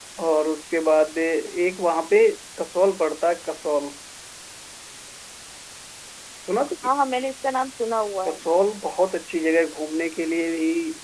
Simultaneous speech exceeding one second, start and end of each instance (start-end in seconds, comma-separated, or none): none